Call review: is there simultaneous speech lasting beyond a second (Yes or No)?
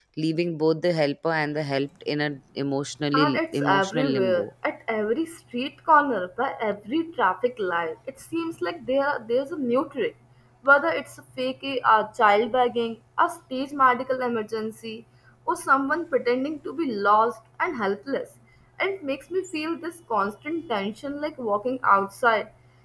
Yes